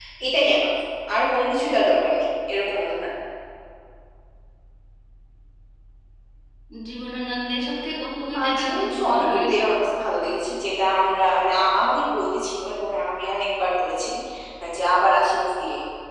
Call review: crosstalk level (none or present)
present